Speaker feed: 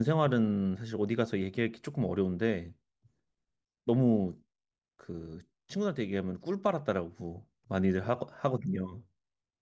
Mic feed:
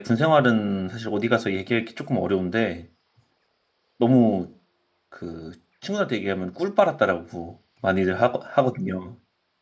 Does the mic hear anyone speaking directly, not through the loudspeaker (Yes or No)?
No